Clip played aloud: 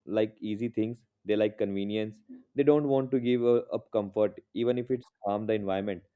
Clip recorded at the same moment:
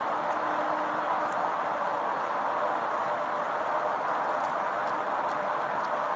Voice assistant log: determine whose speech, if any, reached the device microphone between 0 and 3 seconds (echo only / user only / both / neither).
neither